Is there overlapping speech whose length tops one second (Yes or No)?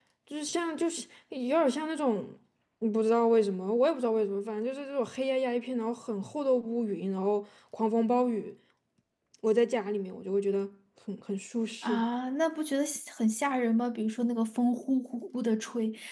No